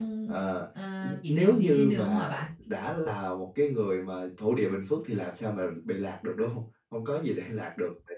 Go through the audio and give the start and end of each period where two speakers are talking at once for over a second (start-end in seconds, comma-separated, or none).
1.0-2.4